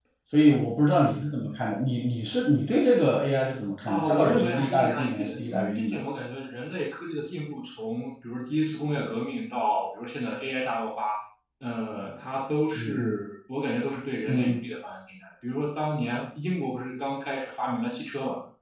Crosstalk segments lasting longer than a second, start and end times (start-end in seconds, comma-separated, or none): 3.9-6.0